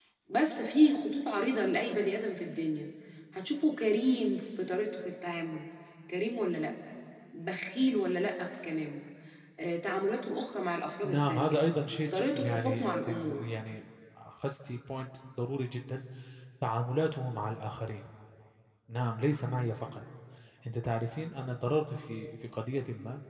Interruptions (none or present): present